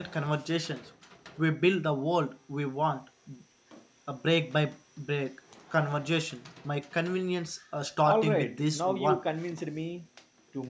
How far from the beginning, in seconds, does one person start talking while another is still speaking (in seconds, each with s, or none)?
8.0 s